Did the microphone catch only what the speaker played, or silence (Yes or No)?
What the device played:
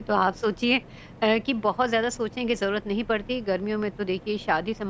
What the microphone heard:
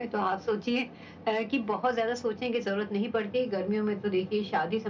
Yes